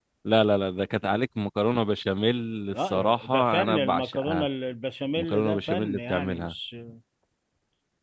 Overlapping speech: Yes, from 2.7 s

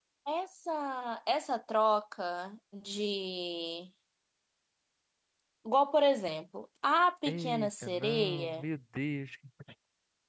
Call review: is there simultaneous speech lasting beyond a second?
Yes, from 7.3 s

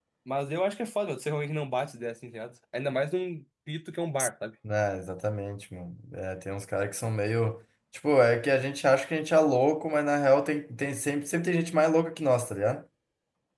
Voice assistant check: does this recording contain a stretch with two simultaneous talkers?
No

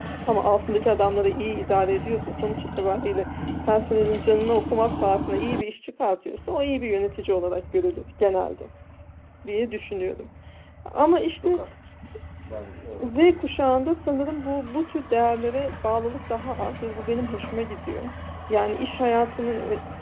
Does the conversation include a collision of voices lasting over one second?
No

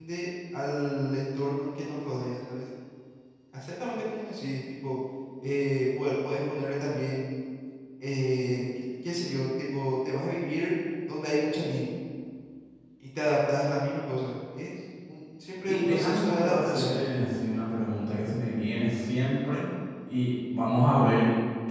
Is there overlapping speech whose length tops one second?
Yes, from 15.6 s

